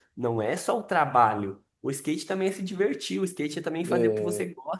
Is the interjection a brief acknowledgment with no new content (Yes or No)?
Yes